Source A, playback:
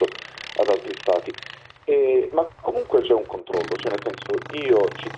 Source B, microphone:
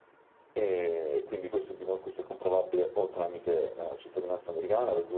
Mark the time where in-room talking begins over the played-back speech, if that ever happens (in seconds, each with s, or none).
0.5 s